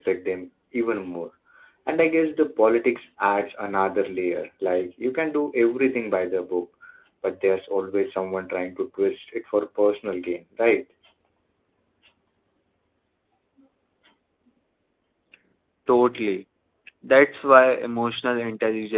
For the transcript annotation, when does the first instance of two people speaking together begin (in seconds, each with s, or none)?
none